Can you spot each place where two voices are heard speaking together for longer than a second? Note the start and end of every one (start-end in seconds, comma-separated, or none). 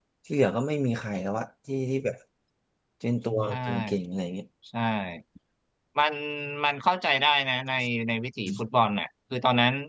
none